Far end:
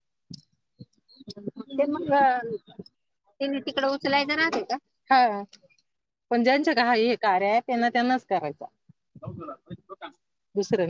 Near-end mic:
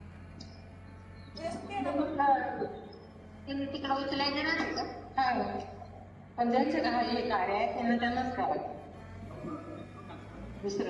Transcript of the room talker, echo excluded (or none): उद्या सुट्टी आहे पण